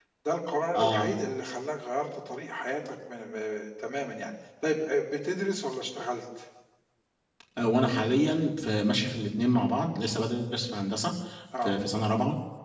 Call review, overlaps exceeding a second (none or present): none